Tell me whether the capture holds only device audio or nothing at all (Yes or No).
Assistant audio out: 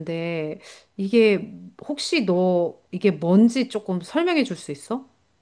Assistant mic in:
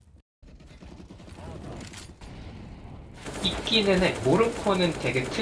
No